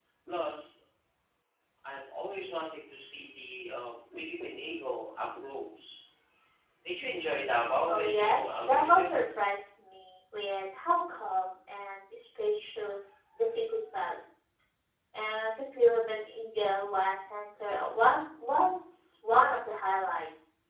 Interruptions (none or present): present